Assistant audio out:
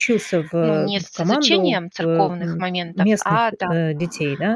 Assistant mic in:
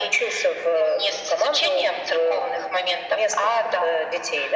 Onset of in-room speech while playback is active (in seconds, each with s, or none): none